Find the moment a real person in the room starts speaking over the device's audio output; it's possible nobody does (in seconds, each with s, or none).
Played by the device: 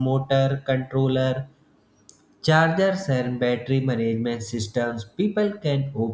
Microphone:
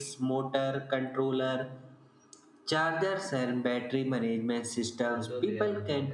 5.1 s